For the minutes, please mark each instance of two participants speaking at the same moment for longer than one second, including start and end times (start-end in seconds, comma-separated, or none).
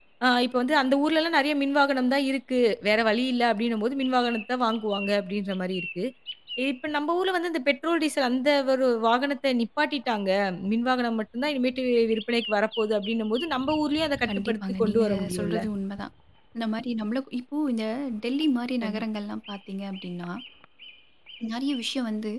14.3-15.6